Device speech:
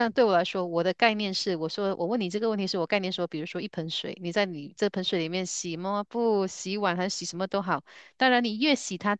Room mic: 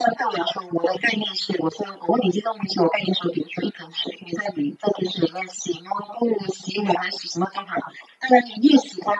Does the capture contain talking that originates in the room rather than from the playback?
No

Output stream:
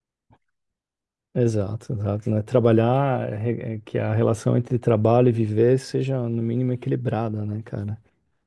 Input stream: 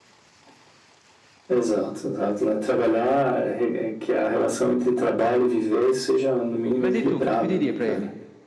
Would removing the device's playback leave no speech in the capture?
No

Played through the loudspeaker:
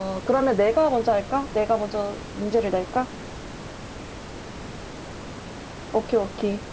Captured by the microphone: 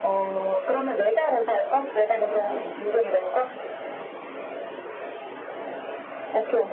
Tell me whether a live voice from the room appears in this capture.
Yes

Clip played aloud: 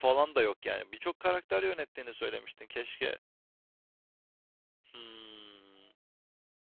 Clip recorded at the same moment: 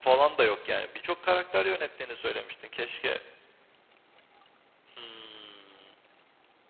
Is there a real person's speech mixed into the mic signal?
No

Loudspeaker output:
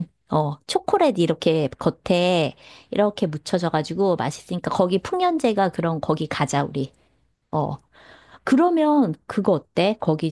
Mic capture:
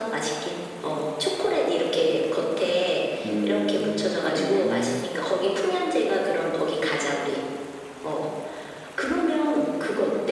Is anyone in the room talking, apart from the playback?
Yes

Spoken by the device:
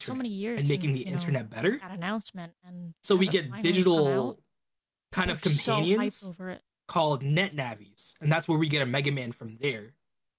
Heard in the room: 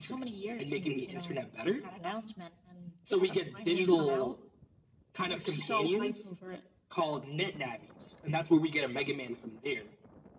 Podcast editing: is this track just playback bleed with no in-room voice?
No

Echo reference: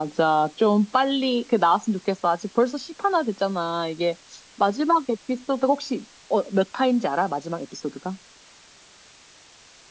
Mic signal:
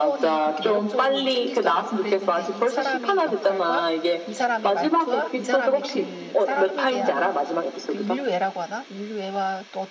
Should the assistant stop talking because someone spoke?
Yes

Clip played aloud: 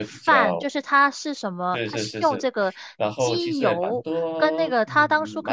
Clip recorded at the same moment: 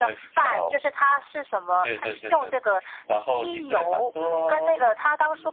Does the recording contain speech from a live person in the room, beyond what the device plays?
No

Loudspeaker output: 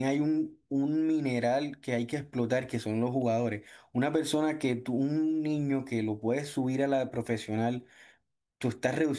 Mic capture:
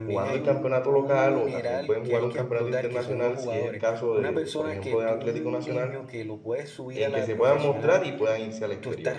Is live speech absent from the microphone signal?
No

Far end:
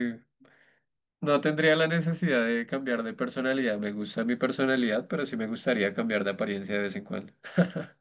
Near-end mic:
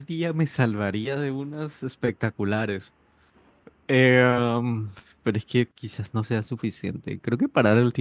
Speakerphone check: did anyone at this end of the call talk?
Yes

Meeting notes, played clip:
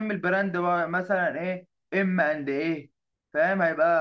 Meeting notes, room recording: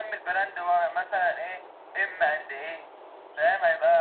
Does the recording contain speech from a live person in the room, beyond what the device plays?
No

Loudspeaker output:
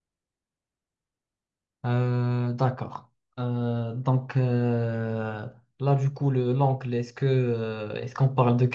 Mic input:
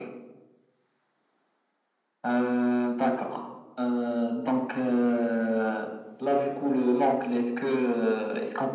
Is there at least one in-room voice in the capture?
No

